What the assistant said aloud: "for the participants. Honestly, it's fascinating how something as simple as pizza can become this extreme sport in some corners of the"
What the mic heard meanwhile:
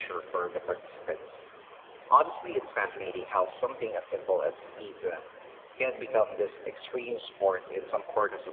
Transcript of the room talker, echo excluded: none

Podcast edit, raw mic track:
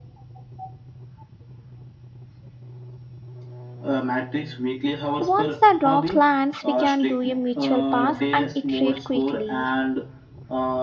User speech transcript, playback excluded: Once the draft lands, we can do a mutual pass and iterate quickly.

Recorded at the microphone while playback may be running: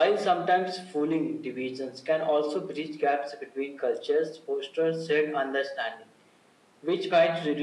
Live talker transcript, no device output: none

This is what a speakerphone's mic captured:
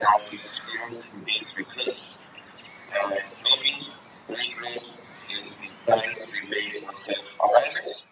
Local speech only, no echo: none

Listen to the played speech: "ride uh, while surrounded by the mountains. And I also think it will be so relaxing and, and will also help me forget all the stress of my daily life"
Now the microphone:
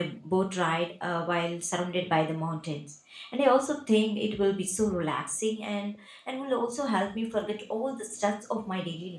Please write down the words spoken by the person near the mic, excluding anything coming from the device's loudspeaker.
none

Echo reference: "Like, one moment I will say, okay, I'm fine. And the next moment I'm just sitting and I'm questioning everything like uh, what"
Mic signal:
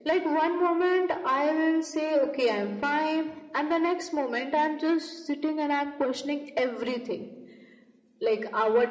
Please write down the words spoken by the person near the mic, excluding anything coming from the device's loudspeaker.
none

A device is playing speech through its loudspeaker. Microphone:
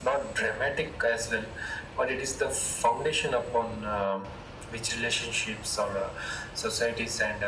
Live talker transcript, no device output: none

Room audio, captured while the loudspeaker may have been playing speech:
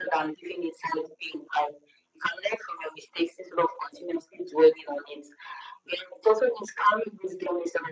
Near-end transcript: none

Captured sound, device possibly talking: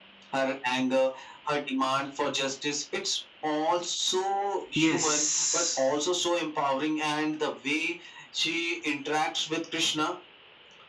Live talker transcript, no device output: yes

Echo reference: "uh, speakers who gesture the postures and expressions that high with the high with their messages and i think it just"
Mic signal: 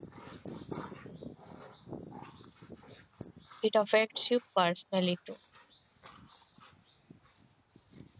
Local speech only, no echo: it affects you personally too.

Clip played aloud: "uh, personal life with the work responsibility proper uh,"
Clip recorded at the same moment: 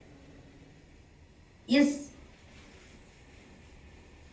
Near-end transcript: Yes,

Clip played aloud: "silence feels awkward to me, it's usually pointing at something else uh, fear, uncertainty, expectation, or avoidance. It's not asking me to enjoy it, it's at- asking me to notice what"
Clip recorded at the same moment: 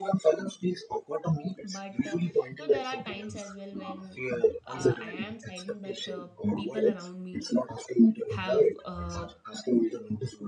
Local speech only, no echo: but uh, you know there are times as well when uh, i am silent but uh, people around me have uh,

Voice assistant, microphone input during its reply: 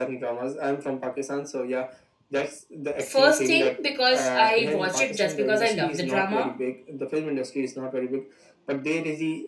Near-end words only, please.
First thing, because I watch it just because I love the drama.

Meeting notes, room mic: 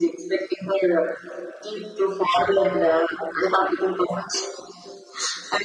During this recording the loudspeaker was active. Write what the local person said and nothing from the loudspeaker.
none

